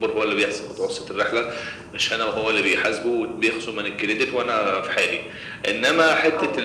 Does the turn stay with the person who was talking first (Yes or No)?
Yes